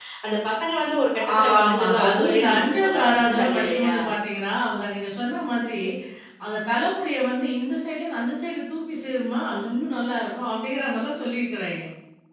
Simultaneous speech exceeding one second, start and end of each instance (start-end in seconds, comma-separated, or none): 1.4-3.9